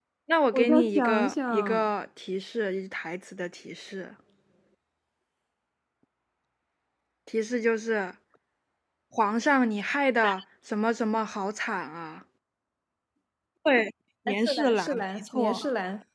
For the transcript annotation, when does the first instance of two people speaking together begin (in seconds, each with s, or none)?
0.5 s